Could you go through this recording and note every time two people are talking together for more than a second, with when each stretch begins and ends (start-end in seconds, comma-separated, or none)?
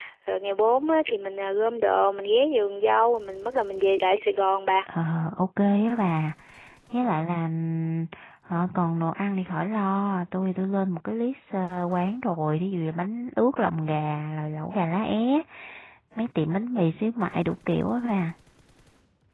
none